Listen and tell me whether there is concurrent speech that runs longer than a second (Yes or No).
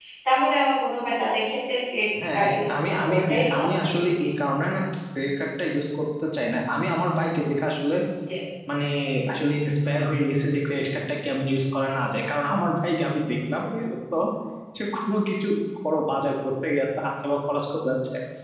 Yes